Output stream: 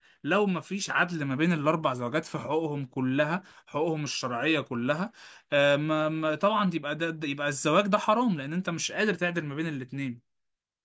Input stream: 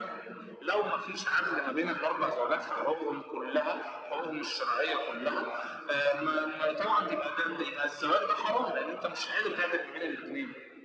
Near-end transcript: none

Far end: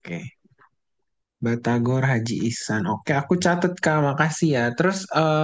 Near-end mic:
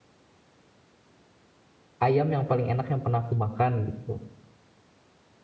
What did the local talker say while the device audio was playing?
ayam yang paling enak yang pernah aku makan gitu.

